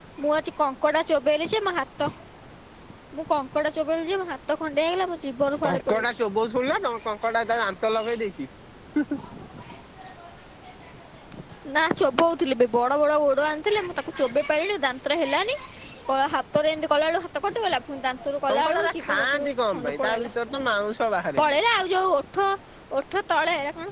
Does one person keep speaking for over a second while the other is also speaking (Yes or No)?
Yes